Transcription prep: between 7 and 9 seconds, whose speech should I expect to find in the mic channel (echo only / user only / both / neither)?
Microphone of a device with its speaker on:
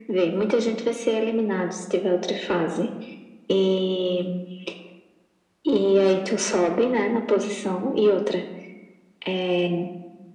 echo only